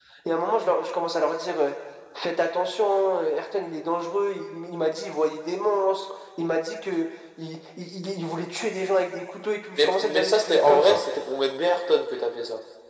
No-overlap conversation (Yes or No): No